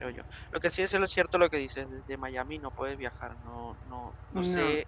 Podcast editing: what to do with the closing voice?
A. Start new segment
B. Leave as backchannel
B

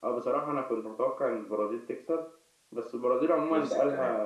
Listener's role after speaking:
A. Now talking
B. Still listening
B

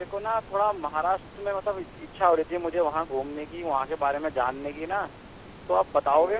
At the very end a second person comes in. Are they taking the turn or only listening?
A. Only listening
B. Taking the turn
B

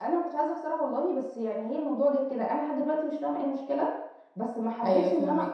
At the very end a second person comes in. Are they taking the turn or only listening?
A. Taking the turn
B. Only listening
B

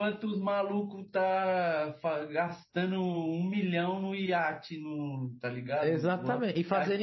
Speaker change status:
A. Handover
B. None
A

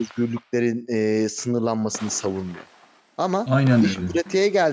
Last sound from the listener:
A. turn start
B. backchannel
B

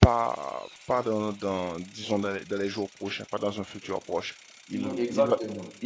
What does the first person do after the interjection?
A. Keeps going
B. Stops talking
A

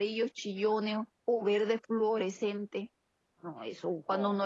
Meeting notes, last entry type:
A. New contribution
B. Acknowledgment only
B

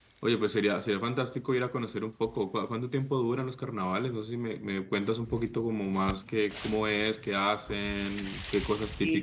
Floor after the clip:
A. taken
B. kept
A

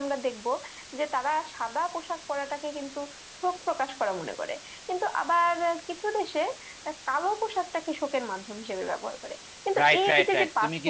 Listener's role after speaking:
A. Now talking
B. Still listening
A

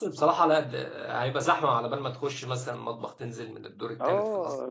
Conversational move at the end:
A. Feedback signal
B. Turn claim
B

